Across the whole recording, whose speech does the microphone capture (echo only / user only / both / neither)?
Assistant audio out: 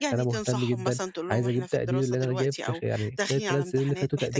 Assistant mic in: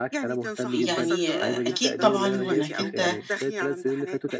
both